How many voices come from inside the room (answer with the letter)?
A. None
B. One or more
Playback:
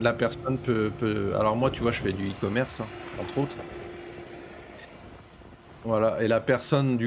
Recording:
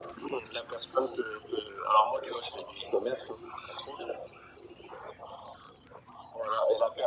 A